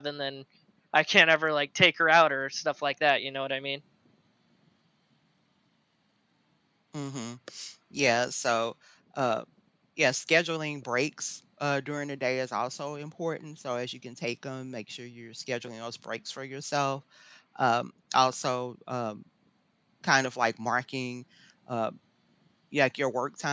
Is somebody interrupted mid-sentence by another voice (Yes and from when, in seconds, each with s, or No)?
No